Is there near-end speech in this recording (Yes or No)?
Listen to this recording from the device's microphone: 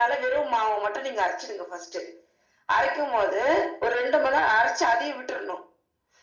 No